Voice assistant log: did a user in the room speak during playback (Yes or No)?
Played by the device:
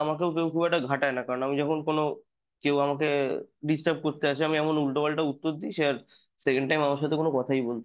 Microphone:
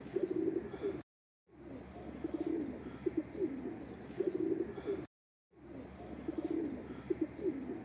No